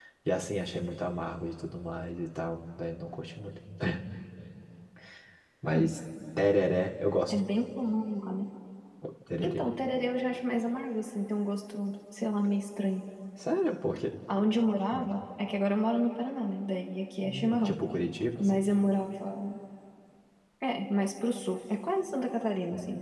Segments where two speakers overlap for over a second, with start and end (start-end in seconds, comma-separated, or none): none